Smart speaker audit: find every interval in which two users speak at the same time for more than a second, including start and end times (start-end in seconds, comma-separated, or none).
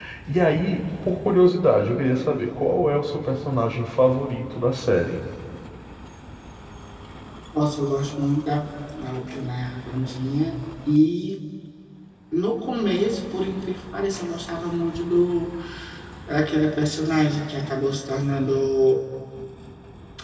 none